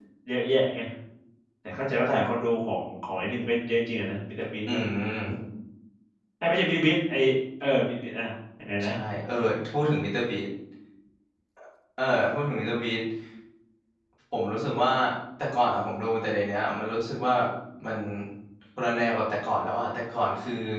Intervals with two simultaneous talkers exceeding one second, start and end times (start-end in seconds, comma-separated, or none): none